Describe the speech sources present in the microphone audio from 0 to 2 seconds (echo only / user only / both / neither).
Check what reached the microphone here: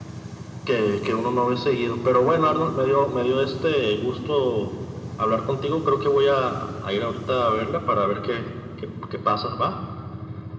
echo only